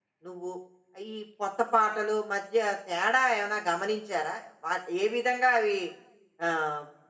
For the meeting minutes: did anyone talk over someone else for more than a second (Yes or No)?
No